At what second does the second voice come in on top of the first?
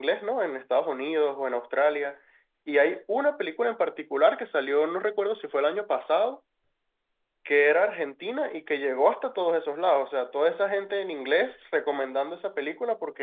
none

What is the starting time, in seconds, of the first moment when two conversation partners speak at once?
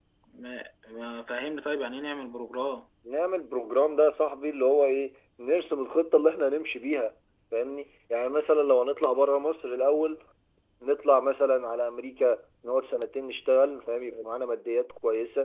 none

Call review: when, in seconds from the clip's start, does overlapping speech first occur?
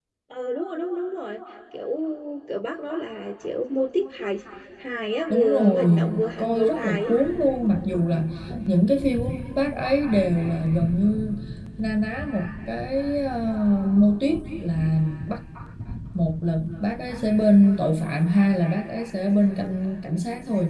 5.3 s

